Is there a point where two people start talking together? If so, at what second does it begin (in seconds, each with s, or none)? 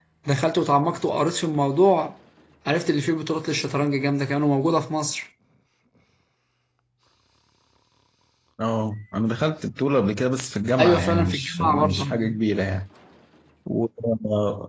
10.8 s